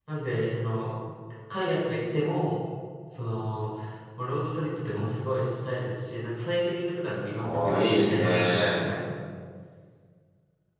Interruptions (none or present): present